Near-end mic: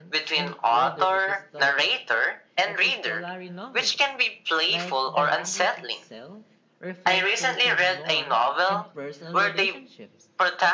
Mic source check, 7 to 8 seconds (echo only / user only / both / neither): both